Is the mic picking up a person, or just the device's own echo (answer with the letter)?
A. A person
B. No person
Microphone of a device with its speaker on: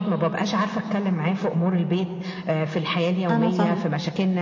A